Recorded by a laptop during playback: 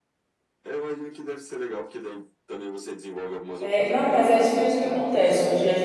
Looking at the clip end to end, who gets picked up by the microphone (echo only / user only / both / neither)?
both